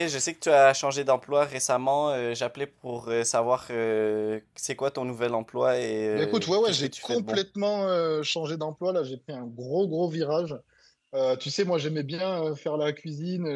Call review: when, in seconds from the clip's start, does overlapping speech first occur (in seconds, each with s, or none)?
6.1 s